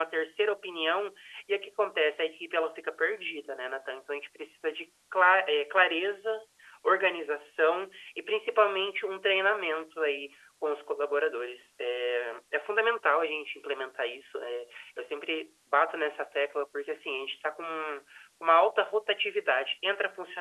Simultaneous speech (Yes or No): No